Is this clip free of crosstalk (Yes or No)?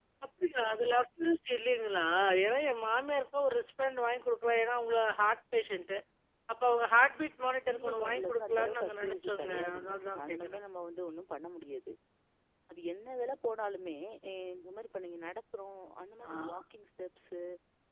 No